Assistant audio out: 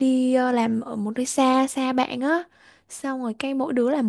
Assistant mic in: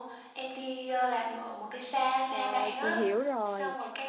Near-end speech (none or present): present